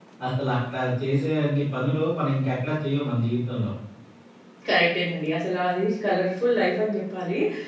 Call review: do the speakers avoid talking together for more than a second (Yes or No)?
Yes